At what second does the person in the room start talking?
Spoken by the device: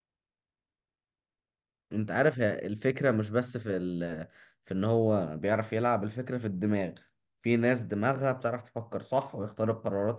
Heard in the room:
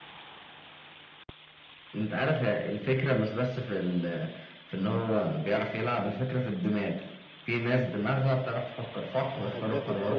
9.3 s

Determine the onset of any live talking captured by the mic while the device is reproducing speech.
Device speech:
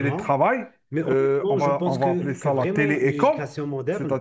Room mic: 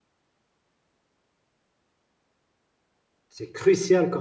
3.3 s

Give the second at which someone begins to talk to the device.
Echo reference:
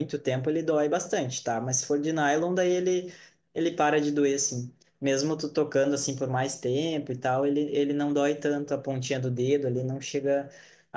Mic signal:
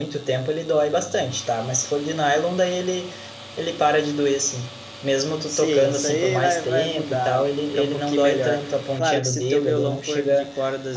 5.5 s

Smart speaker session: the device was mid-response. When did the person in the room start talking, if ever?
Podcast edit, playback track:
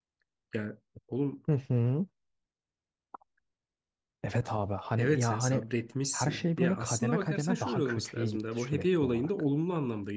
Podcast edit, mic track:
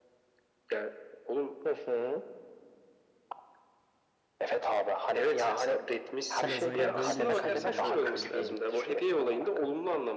6.4 s

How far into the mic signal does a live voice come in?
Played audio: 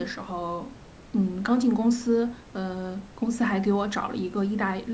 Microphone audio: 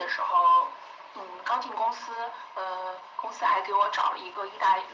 none

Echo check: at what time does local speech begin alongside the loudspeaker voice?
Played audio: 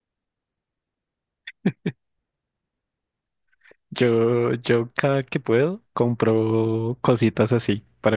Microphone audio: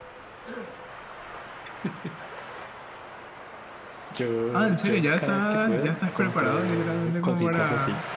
4.5 s

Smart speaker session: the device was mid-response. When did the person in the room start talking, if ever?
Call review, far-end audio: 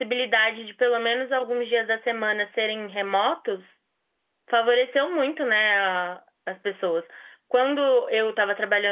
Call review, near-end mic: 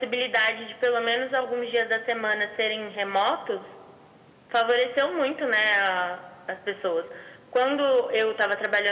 none

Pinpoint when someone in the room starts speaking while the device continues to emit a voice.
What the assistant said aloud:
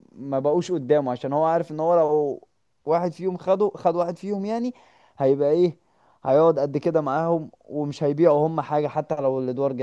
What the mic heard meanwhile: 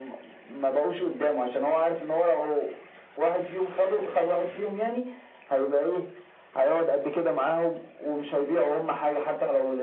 none

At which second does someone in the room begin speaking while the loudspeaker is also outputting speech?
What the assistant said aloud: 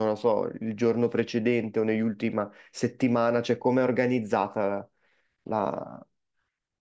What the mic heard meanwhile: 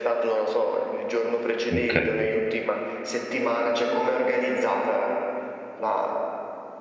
1.7 s

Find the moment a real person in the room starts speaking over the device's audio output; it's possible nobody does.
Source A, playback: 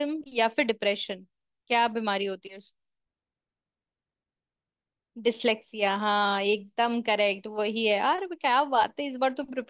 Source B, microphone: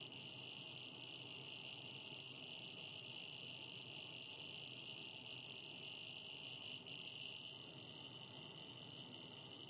none

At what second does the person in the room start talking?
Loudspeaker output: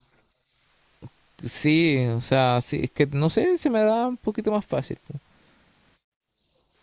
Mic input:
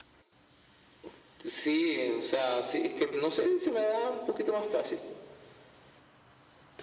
none

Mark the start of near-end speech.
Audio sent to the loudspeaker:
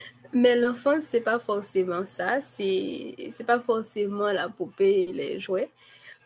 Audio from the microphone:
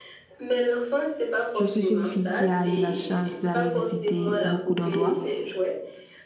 1.5 s

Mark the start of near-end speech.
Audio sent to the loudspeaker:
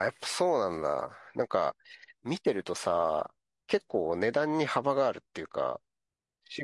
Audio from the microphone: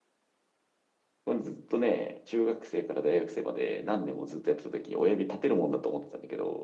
1.2 s

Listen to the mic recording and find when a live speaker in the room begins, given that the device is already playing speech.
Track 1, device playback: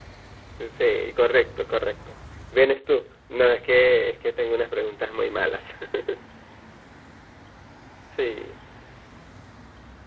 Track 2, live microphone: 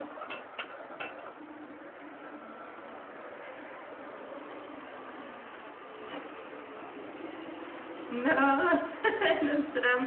8.1 s

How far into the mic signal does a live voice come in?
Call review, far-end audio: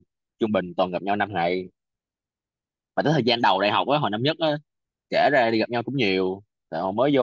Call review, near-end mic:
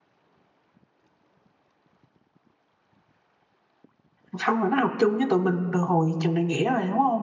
4.3 s

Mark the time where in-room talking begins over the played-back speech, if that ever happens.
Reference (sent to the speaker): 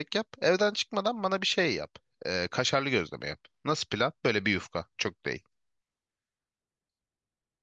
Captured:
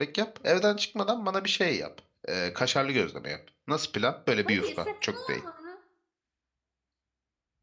4.3 s

